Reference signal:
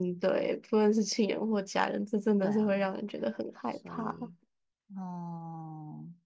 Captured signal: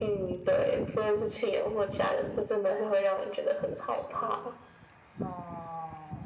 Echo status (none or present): present